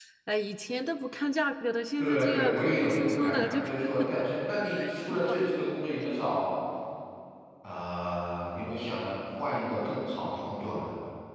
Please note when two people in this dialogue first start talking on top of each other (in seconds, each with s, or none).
2.0 s